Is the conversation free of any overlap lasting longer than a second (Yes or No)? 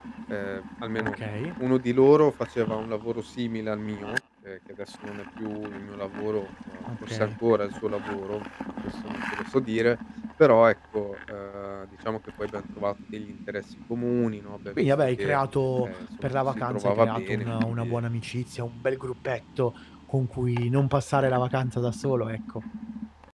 No